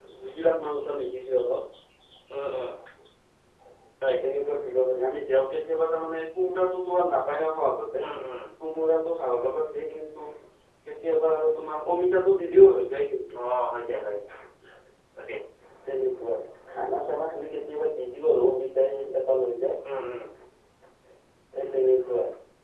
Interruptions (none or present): none